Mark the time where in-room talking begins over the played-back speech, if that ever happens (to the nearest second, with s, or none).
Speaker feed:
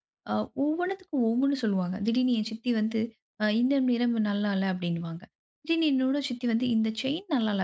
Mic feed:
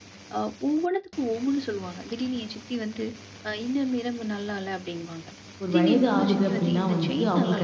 6 s